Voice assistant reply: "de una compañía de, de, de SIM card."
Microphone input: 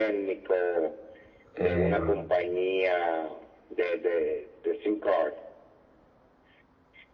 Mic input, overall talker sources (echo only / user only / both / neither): both